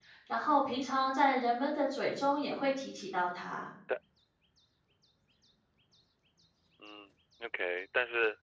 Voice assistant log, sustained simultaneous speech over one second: none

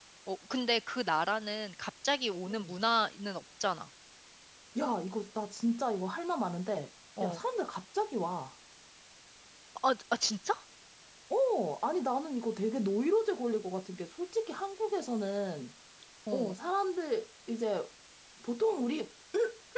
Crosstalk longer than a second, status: none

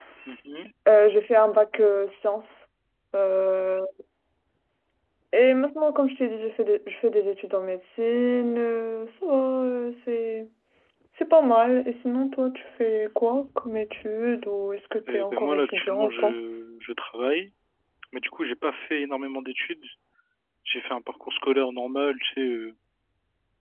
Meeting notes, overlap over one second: present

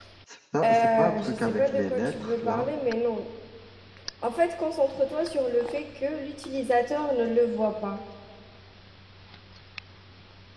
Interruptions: present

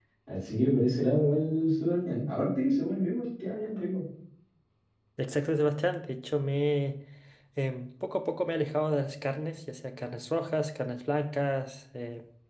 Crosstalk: none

